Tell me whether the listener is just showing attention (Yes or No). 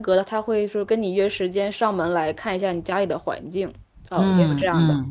No